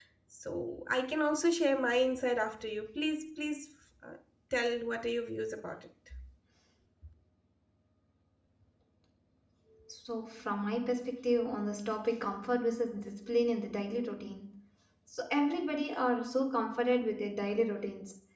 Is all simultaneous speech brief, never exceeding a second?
Yes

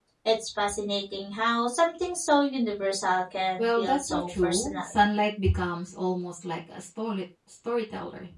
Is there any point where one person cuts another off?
Yes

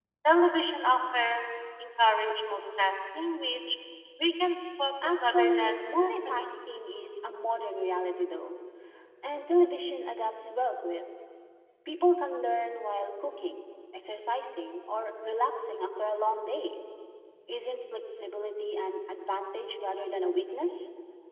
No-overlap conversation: No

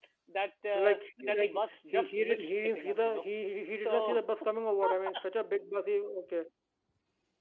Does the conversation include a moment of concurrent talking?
Yes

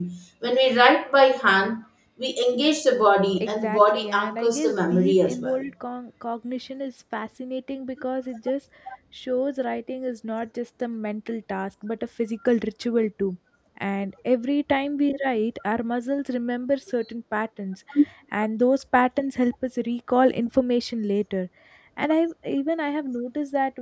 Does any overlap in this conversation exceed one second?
Yes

